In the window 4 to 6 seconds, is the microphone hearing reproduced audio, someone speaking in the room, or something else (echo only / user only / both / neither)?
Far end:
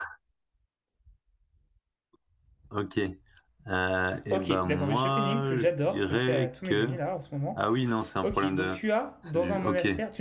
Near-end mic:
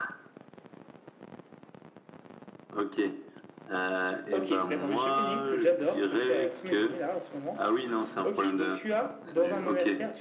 echo only